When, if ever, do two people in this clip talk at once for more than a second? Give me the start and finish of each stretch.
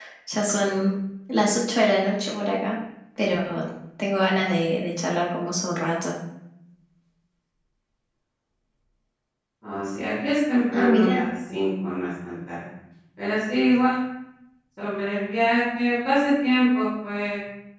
none

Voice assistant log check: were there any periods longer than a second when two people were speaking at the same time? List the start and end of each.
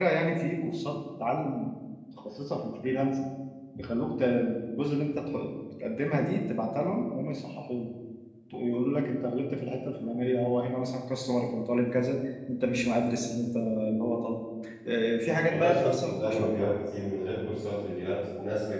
15.5-16.7

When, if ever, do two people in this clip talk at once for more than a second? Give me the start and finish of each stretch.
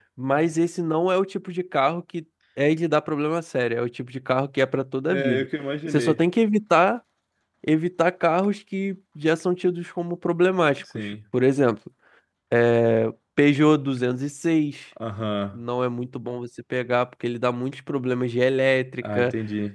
none

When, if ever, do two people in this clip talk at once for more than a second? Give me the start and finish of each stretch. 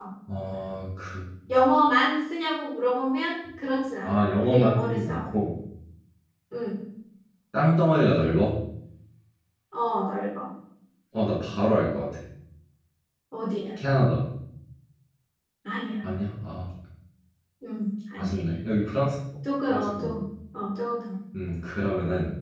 4.0-5.3

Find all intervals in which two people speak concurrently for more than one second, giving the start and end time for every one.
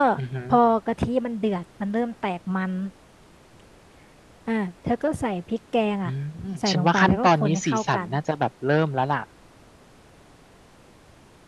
6.6-8.1

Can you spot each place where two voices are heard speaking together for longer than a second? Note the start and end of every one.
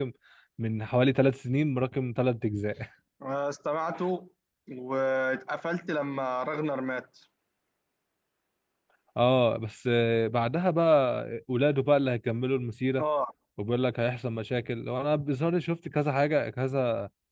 none

